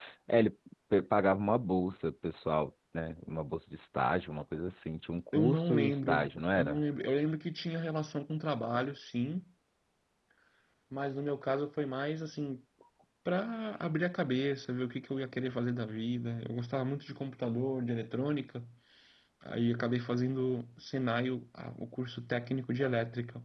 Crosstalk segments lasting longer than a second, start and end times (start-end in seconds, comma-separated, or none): 5.3-6.8